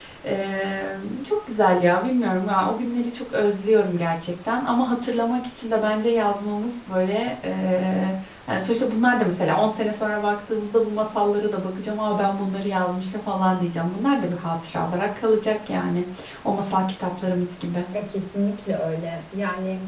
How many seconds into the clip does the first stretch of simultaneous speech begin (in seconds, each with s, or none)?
none